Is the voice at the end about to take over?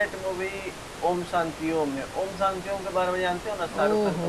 Yes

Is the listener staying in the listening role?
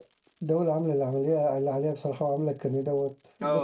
No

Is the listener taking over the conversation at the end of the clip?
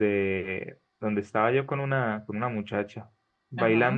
No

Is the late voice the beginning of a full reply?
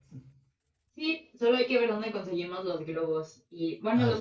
No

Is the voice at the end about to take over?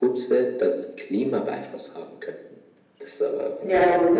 Yes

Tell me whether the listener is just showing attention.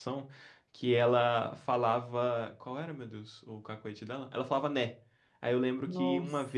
Yes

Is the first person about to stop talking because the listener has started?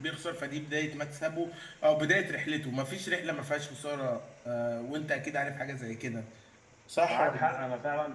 Yes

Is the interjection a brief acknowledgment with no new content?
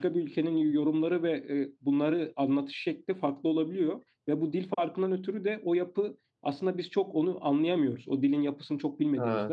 Yes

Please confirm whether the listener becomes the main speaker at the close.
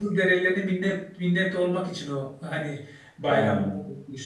No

